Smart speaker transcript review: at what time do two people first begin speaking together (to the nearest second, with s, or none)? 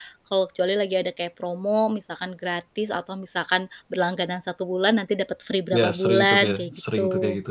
6 s